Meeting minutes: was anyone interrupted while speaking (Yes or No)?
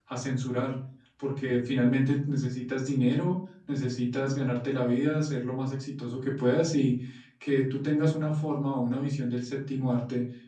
No